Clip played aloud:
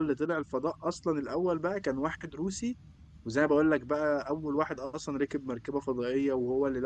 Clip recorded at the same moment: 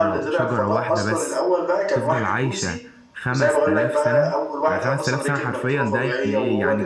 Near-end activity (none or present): present